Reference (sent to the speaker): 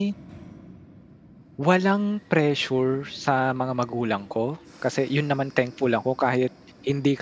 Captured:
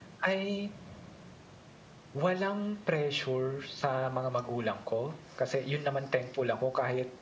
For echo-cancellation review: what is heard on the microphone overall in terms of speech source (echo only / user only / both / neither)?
echo only